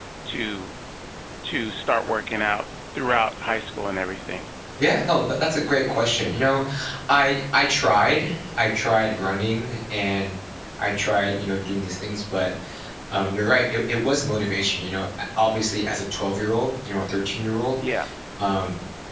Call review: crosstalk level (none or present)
none